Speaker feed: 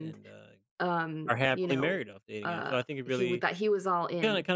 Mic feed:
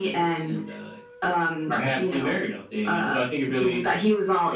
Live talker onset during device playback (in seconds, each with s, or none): none